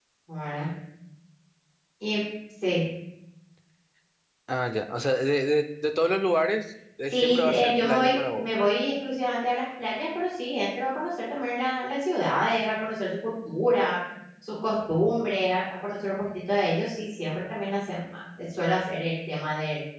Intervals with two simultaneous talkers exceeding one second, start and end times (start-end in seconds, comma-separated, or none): 7.1-8.7